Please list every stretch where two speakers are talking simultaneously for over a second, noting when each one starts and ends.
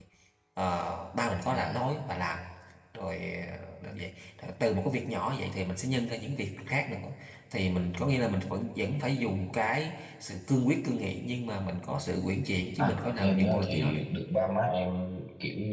12.8-14.0

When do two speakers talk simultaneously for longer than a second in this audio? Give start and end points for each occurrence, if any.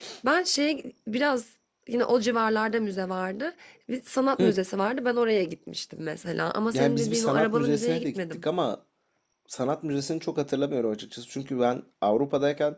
6.7-8.4

